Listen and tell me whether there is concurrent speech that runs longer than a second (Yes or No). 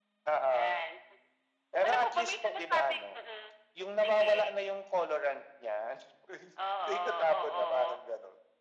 Yes